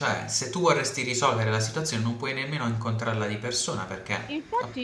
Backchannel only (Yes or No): No